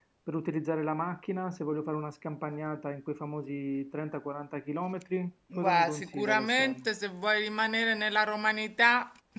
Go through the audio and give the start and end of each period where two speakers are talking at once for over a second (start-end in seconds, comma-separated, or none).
5.6-6.8